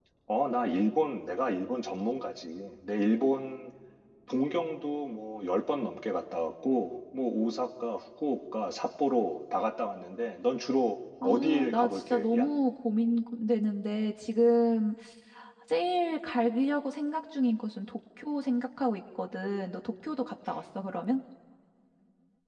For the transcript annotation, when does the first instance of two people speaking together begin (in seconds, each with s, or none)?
11.2 s